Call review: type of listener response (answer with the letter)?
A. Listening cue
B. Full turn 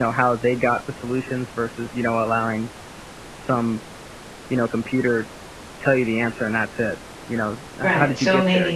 B